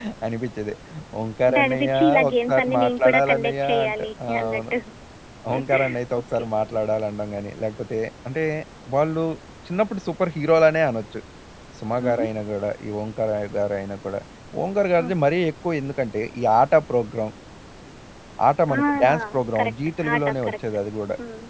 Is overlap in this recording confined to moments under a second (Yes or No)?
No